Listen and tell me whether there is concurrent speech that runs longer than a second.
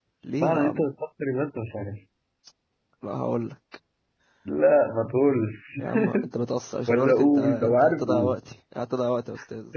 Yes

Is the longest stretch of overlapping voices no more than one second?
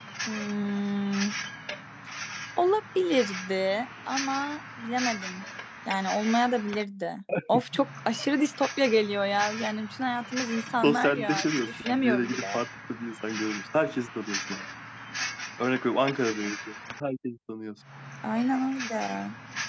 No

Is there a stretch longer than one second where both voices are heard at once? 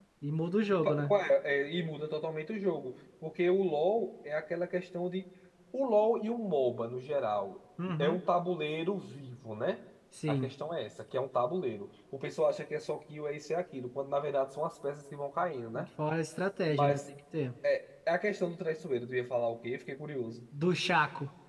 No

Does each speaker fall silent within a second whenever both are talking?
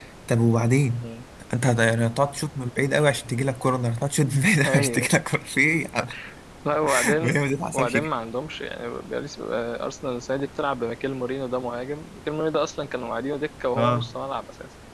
Yes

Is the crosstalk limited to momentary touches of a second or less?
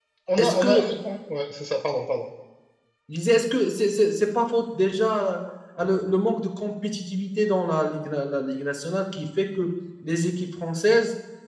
Yes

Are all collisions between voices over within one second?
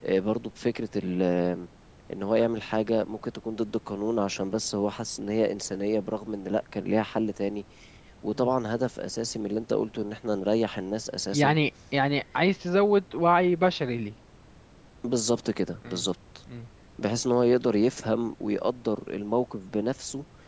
Yes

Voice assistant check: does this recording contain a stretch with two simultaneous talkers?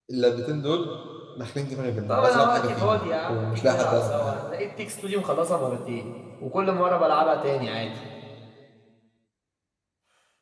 Yes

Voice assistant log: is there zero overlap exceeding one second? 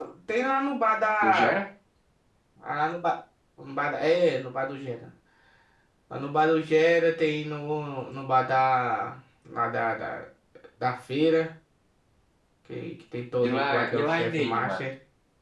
No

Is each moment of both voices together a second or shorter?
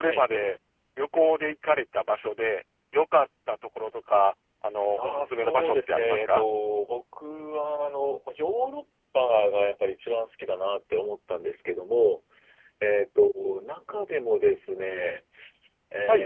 No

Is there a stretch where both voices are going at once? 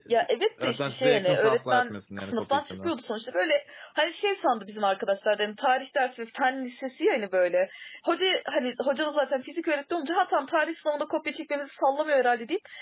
Yes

